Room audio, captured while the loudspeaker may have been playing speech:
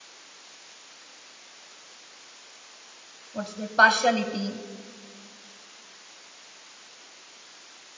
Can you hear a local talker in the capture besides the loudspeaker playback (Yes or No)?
Yes